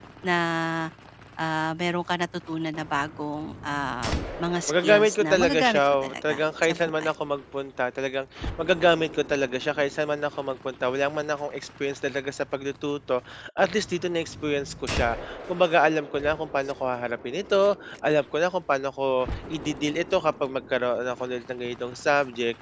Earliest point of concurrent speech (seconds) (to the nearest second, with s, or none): 5 s